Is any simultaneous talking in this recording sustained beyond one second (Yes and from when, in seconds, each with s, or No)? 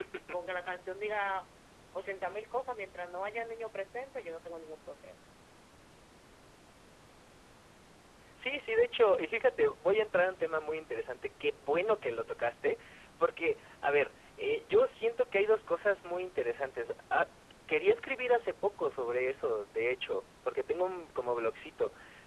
No